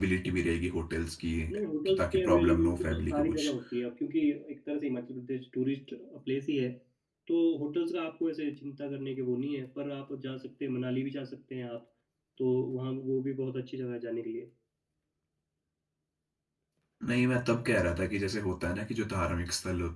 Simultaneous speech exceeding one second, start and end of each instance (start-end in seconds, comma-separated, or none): 1.9-3.5